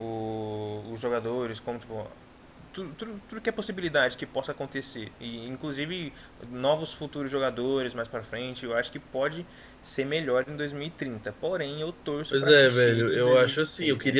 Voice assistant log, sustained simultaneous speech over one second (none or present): present